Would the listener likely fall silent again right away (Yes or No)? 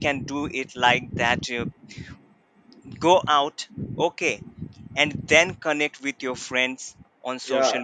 No